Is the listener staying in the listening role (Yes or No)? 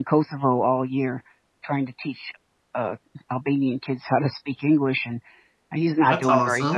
Yes